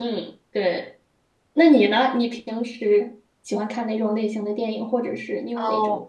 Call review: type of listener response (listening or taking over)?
taking over